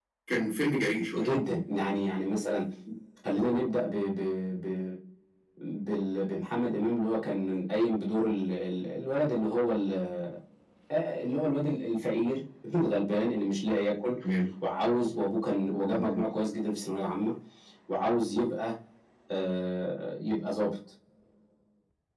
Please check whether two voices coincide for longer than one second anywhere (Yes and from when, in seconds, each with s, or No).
No